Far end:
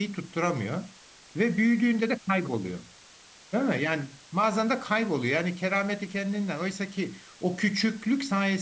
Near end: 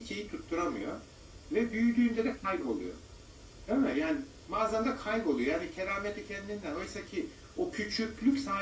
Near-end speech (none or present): none